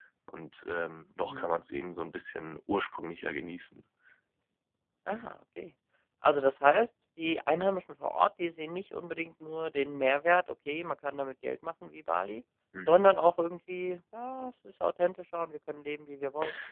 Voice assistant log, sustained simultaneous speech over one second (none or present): none